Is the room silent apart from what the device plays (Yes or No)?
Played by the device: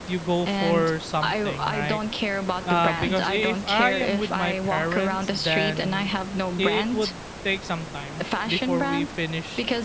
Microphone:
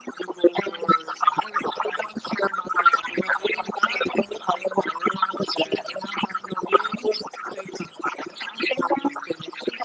Yes